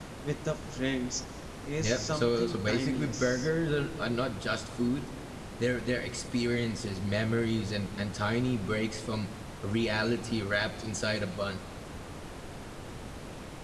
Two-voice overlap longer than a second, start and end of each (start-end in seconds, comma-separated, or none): 1.8-3.5